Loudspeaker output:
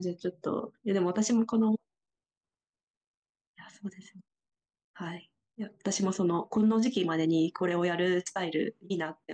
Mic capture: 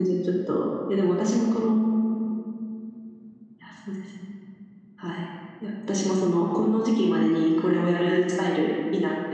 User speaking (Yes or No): No